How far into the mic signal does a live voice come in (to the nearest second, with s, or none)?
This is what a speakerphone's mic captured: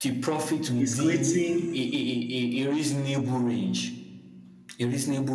1 s